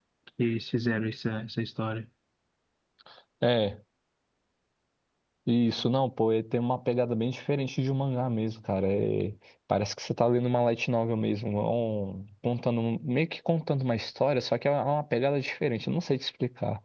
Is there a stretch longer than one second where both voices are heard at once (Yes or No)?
No